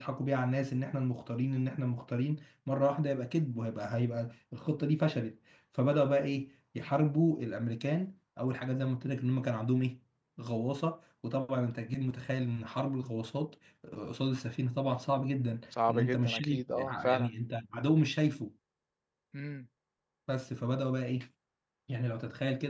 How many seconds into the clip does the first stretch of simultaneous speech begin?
15.7 s

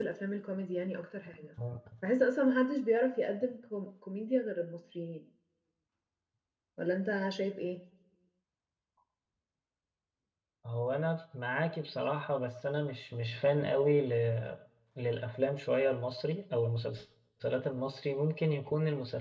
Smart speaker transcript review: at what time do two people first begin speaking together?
none

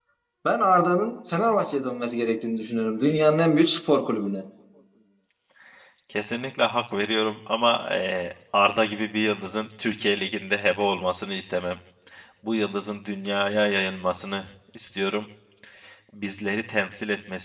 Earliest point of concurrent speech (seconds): none

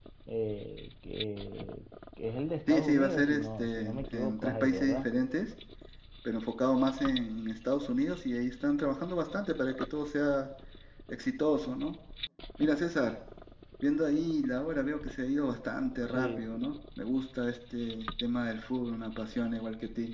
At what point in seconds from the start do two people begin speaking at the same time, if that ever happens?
2.7 s

